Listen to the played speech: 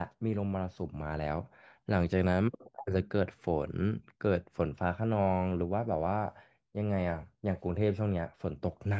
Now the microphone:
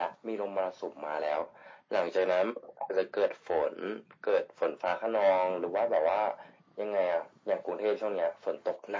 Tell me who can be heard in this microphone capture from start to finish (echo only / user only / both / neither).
echo only